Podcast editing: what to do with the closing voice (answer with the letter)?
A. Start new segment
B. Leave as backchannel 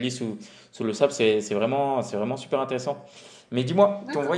B